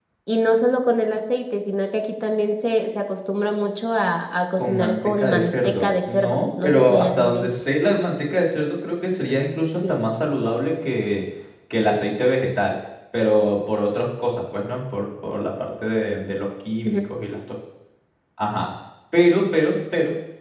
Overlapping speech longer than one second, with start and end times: 4.6-7.5

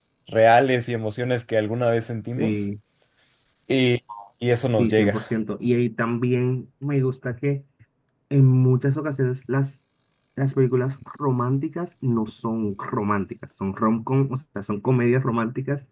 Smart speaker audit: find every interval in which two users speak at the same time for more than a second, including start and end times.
none

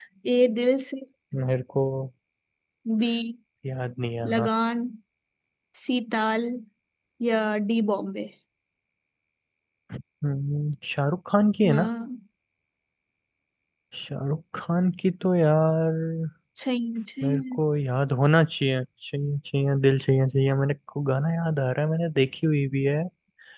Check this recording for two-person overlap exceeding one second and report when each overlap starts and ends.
none

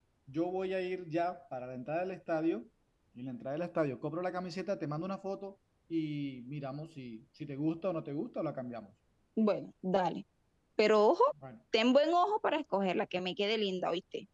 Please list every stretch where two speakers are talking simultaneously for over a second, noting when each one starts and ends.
none

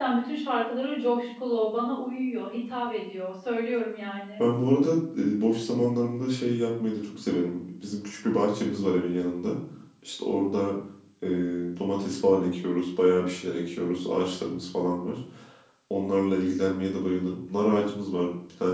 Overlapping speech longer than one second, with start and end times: none

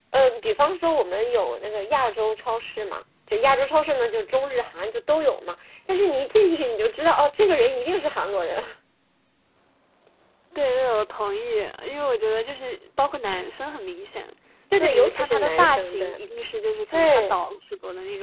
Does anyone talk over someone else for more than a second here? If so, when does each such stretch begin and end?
14.8-16.1

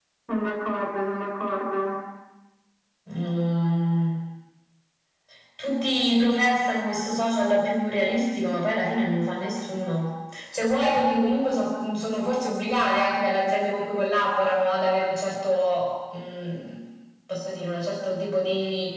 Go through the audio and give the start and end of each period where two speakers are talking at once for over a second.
none

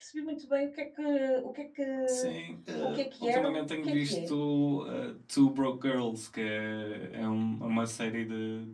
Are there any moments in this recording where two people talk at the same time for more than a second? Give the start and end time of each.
2.8-4.3

